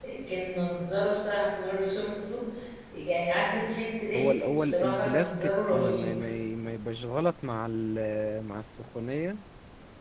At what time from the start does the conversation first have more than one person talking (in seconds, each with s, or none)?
4.1 s